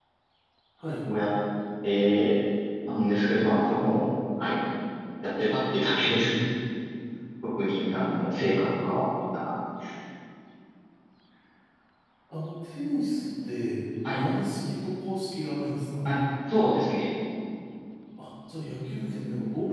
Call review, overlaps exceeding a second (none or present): none